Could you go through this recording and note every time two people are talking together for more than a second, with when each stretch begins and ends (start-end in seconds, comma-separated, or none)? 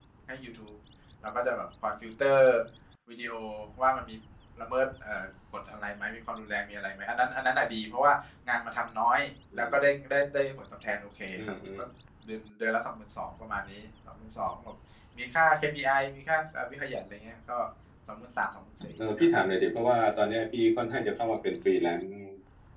none